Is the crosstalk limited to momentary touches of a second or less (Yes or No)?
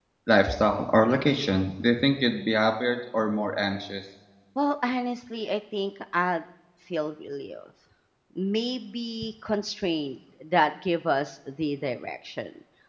Yes